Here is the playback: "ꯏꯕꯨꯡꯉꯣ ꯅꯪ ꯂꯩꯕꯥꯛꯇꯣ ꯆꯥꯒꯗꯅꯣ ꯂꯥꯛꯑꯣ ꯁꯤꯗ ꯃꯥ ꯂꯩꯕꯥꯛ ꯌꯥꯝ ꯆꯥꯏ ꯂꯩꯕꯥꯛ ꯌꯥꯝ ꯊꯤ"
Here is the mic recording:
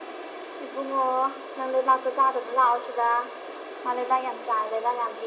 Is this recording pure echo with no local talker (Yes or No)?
Yes